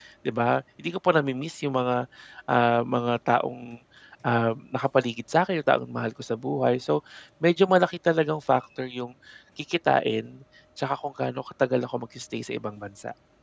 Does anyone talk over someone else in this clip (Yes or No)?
No